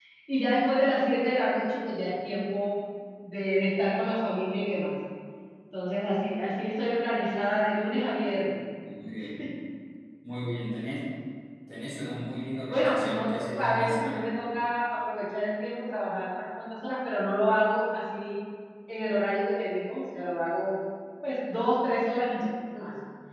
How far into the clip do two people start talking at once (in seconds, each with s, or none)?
12.7 s